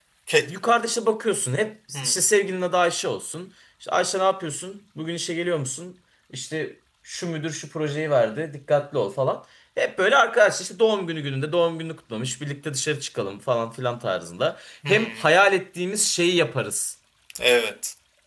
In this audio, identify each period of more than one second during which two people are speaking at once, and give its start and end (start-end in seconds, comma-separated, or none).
none